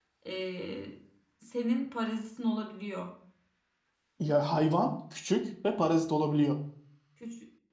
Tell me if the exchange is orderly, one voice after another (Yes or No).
Yes